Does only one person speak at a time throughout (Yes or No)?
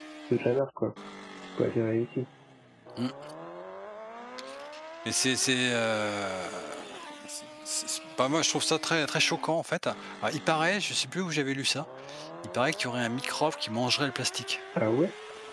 Yes